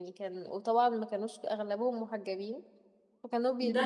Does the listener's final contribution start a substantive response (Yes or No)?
Yes